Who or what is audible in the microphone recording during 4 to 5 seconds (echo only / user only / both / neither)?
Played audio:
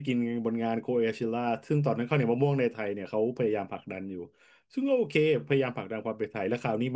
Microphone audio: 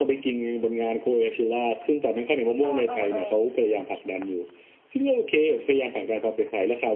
echo only